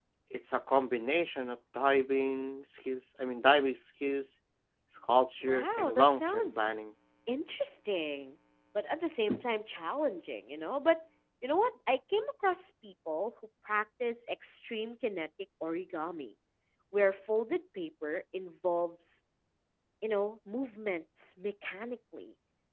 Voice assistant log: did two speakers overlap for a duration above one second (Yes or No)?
Yes